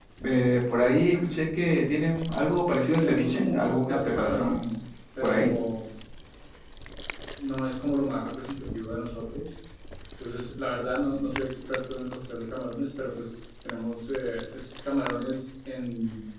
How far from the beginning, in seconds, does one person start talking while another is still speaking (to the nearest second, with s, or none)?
3 s